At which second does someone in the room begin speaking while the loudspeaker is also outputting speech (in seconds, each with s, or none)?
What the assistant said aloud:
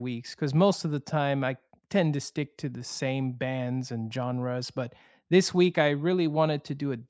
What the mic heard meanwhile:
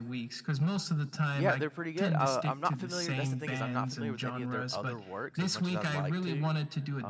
1.3 s